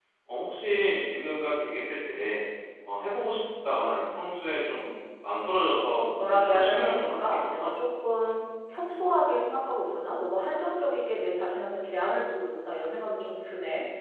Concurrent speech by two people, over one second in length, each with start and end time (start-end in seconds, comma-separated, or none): 6.2-7.7